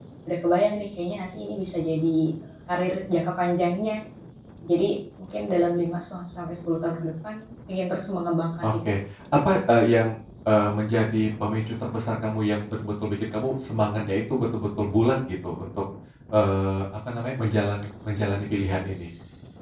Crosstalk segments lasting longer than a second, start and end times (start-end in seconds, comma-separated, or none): none